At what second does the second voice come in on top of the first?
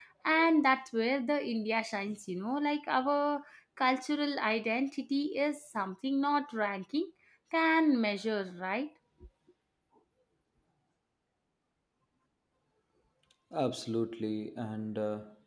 none

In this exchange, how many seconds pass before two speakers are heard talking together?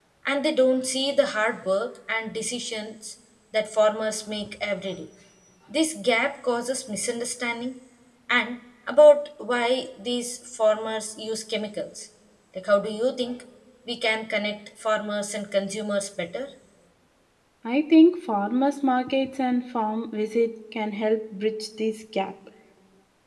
none

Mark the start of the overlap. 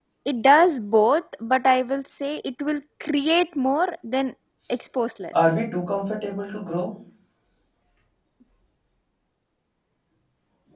none

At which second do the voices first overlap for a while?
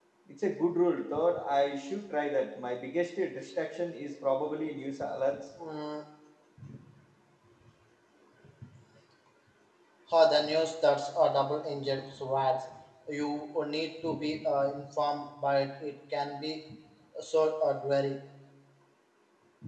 none

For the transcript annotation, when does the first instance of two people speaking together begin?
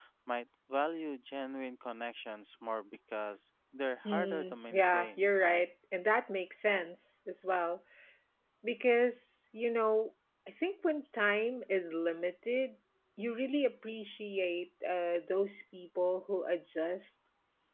4 s

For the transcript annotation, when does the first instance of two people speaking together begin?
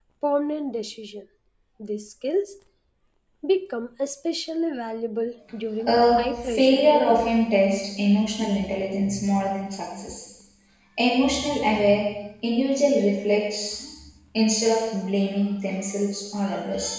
6 s

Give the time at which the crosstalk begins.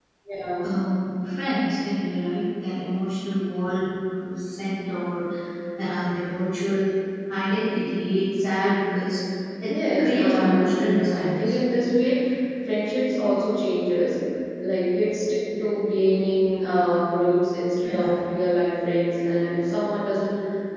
10 s

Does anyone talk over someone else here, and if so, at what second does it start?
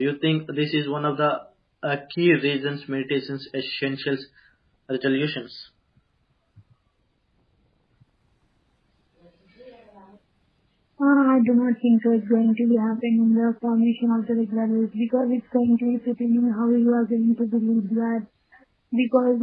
none

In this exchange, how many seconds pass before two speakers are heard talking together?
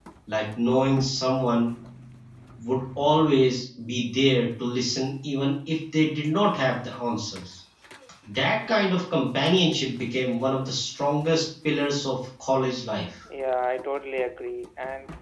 none

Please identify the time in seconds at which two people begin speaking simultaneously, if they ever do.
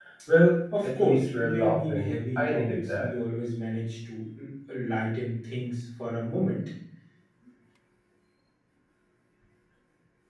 1 s

